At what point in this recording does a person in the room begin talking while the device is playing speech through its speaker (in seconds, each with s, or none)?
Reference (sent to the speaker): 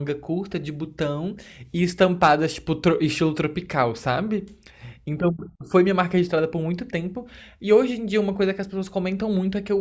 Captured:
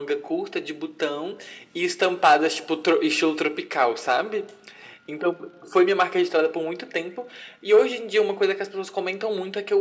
none